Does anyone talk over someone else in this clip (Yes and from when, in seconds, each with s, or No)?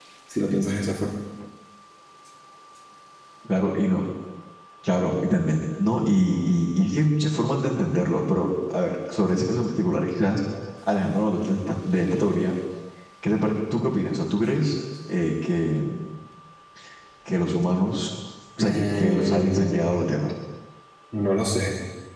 Yes, from 18.6 s